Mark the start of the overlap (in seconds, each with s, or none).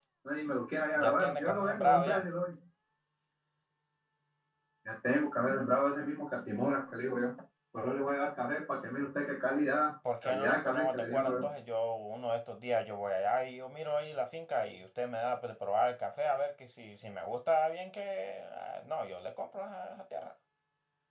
1.0 s